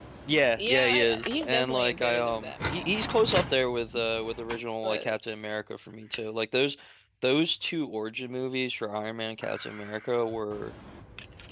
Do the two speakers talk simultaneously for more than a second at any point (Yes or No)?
Yes